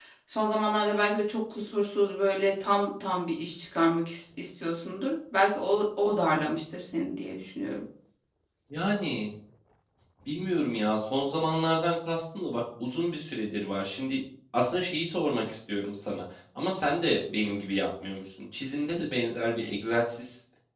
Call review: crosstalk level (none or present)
none